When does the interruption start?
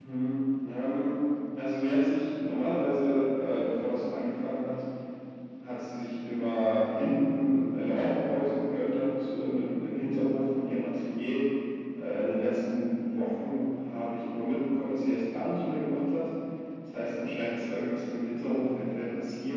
none

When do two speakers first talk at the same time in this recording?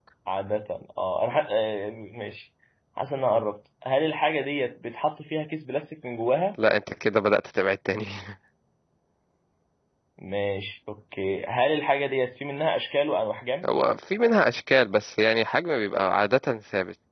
none

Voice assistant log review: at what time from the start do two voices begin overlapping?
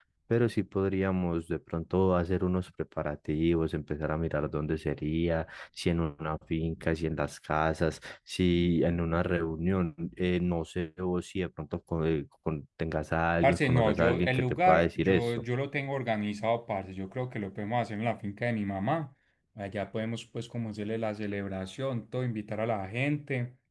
13.4 s

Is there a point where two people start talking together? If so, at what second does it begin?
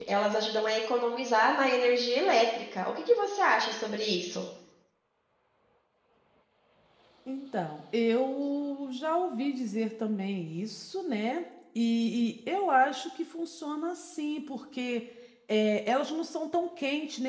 none

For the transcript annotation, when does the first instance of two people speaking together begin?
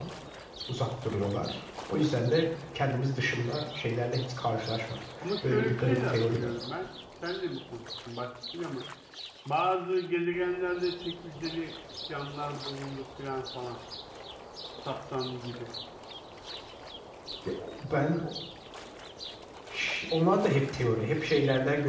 5.2 s

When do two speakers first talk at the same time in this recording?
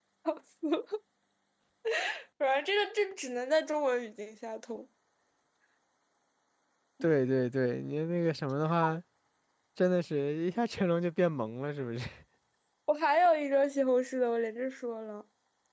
none

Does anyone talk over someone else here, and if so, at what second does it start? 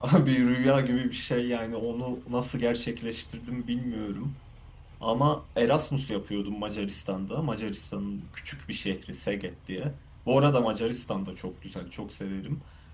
none

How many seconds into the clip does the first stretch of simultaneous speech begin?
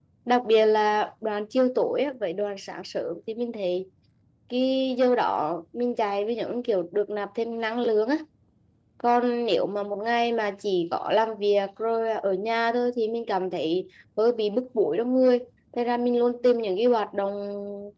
none

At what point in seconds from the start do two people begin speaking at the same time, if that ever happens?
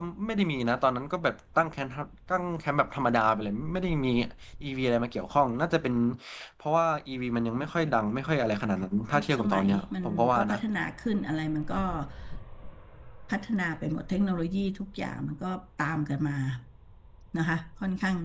9.1 s

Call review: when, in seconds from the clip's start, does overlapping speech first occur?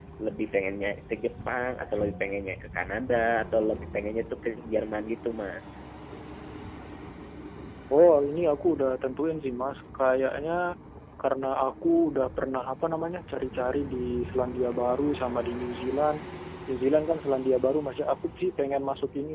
none

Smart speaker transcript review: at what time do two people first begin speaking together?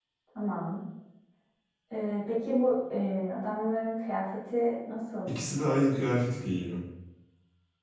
none

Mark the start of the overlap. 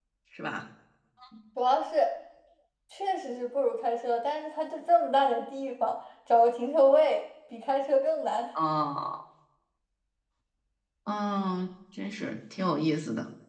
none

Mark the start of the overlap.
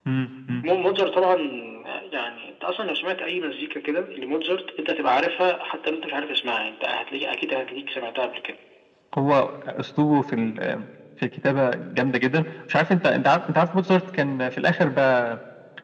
none

